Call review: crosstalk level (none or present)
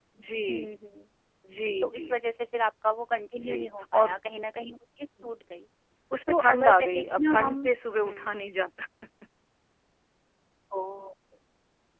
present